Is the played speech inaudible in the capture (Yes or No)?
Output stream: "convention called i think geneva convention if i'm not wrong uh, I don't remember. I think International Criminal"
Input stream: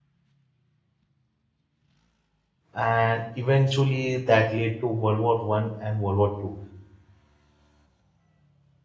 Yes